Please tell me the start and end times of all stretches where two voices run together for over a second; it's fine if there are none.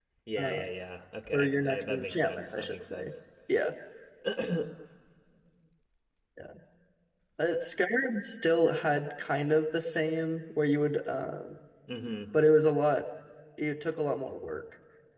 1.3-3.1

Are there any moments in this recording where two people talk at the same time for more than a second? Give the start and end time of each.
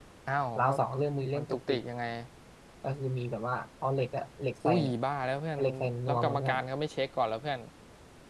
none

